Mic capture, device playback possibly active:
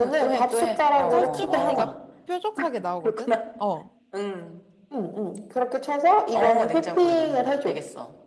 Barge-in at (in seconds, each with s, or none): 1.1 s